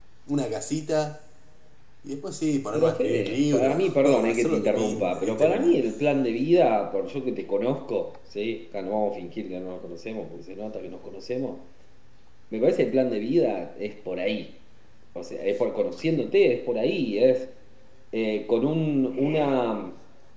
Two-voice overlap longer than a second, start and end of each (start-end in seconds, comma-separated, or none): 2.7-5.8